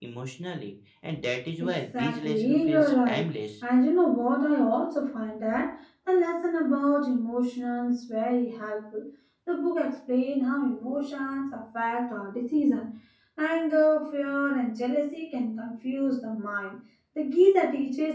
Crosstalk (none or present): present